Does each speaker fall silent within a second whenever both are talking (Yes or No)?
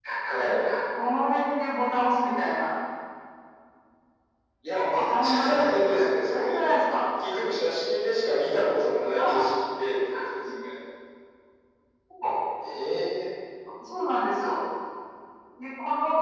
No